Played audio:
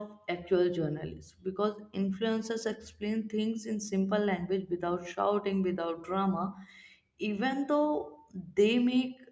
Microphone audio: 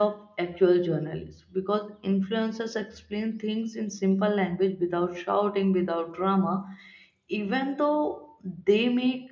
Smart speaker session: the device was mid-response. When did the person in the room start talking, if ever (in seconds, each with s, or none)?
none